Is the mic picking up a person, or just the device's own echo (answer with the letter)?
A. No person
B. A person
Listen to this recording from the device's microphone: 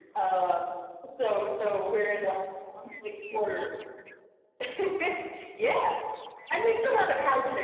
A